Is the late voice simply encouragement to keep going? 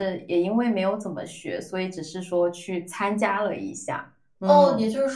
No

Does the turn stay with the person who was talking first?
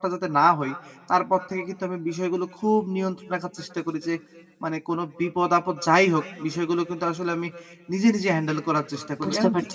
Yes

